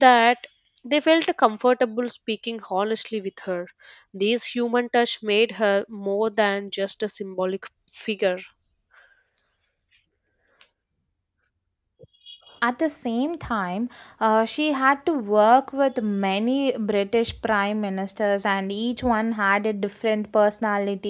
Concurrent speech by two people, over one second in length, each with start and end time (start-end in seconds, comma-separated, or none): none